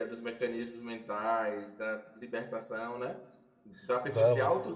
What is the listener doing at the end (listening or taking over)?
listening